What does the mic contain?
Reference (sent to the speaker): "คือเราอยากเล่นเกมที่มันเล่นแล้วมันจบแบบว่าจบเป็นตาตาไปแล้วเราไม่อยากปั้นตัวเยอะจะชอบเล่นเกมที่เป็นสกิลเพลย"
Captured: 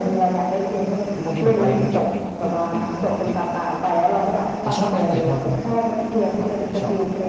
both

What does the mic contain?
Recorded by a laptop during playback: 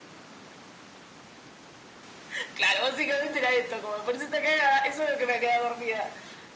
echo only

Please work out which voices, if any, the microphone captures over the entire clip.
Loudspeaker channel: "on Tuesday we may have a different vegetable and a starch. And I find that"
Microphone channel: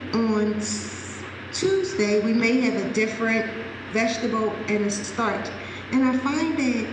echo only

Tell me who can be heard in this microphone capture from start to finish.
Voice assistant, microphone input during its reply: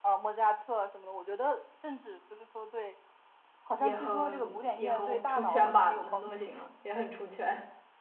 both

